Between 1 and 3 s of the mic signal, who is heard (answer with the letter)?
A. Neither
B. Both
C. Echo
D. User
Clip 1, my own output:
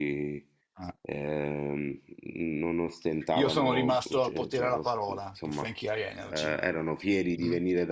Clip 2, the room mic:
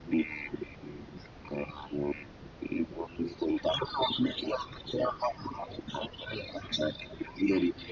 C